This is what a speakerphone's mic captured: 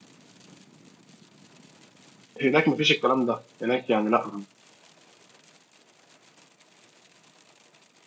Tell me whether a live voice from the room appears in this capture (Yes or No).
Yes